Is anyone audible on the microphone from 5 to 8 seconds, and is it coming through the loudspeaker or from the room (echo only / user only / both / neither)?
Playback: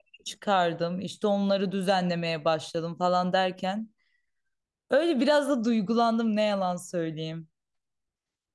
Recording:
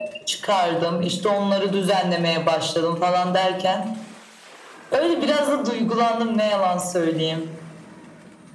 echo only